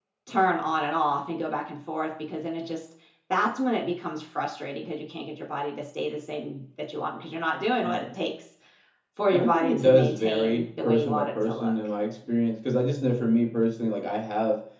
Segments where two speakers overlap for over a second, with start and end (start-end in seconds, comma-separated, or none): 9.3-11.7